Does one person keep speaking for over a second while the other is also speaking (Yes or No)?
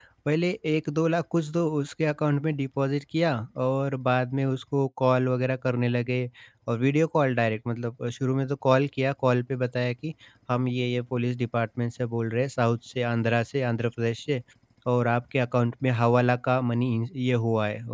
No